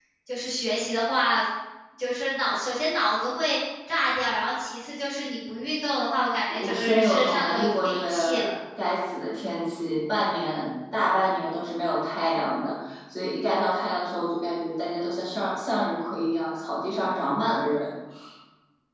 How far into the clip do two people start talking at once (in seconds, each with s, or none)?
6.5 s